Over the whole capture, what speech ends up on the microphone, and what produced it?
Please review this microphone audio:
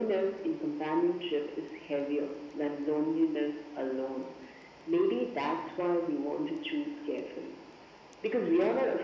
echo only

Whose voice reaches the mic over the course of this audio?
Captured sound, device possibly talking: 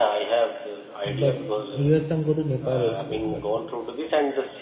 both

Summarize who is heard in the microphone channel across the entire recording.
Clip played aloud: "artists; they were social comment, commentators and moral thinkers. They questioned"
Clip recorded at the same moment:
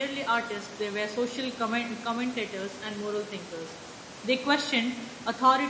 echo only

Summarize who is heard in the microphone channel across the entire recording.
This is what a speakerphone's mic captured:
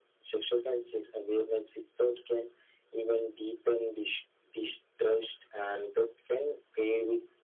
echo only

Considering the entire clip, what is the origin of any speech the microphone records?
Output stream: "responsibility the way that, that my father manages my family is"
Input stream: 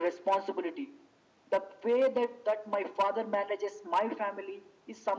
echo only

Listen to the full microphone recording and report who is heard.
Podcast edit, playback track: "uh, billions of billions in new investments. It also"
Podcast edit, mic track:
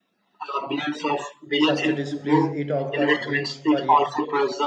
both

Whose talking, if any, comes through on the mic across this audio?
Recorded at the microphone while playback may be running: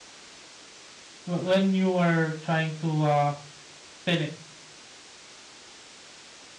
user only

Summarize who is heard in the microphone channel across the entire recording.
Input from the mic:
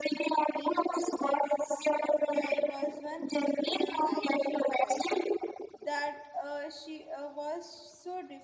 both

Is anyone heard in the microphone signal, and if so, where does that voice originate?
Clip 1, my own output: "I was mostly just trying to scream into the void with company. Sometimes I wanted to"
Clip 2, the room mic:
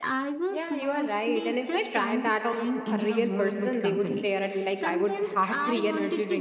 both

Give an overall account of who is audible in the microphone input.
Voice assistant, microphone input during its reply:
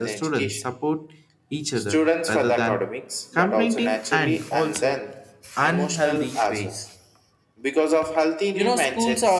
both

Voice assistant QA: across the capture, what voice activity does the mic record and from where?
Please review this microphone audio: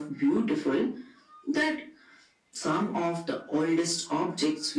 echo only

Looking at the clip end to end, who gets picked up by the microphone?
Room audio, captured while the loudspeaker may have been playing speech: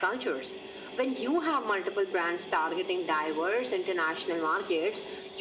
echo only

